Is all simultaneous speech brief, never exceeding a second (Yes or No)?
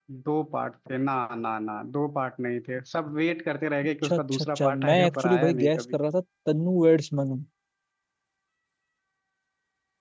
No